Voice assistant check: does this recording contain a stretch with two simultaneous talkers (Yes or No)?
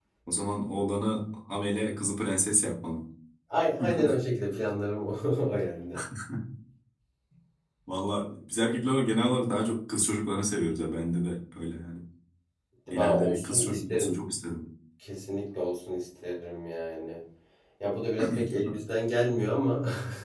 Yes